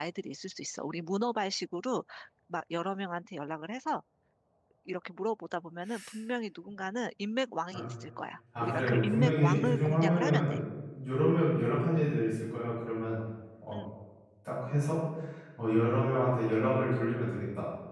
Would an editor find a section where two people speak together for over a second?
Yes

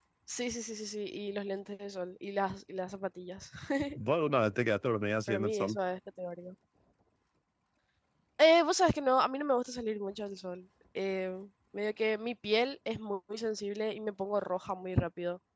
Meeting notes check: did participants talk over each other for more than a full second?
No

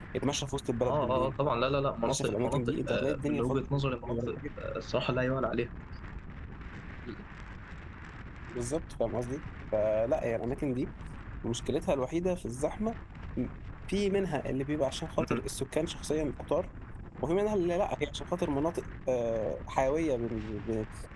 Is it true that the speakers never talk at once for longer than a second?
No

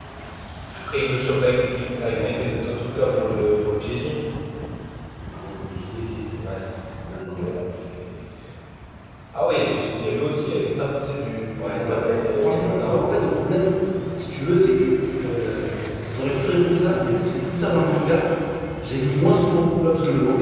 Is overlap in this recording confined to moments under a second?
No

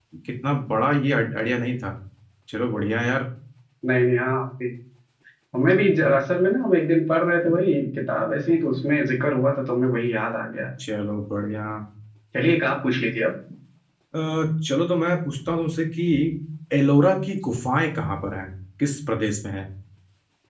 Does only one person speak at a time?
Yes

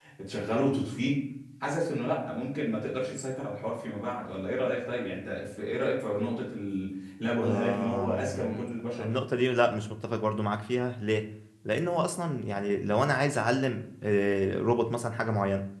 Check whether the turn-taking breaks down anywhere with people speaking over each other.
Yes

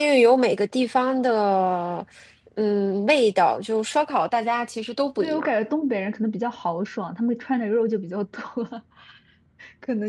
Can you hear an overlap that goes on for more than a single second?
No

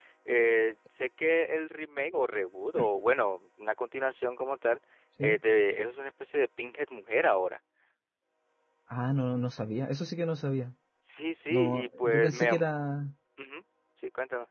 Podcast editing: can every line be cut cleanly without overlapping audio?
No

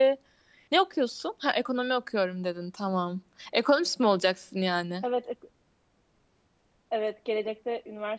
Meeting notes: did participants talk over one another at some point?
No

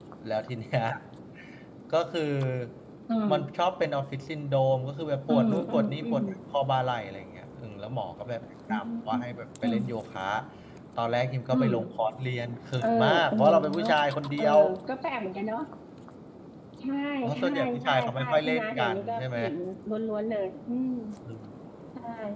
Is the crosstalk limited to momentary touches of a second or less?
No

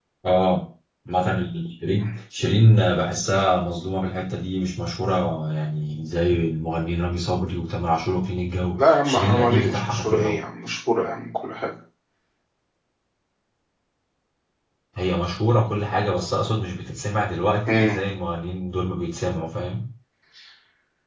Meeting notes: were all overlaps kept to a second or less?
No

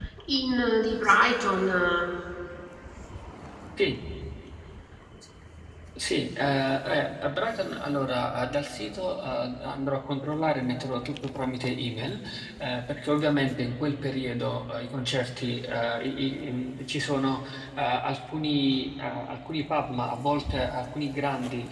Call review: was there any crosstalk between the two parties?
No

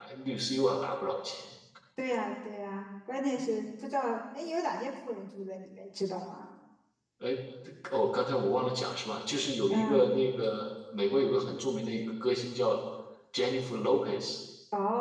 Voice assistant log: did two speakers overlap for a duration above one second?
No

